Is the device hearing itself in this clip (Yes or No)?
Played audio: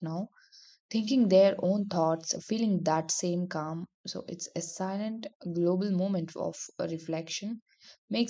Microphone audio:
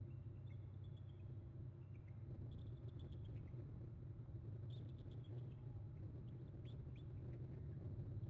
No